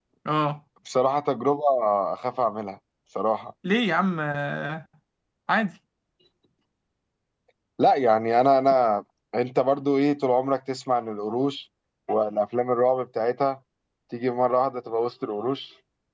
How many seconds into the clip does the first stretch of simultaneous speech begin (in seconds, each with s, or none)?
none